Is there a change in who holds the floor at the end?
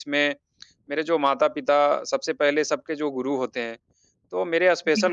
No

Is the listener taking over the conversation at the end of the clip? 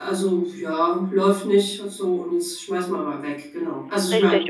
Yes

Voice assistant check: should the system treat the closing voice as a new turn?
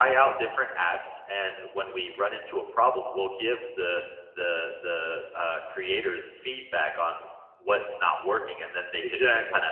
No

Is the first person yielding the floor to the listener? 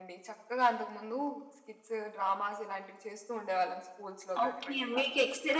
Yes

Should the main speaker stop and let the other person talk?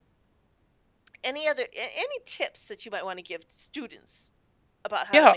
Yes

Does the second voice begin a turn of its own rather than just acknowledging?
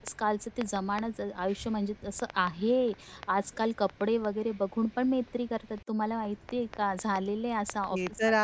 Yes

